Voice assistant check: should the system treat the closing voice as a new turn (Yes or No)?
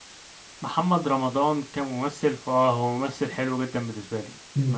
Yes